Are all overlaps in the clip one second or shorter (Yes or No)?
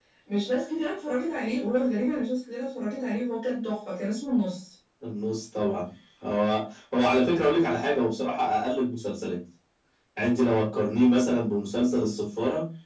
Yes